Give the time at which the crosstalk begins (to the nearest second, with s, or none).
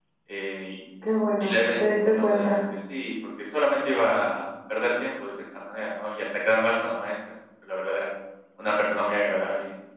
1 s